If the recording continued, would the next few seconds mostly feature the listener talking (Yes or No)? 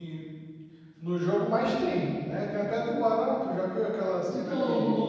Yes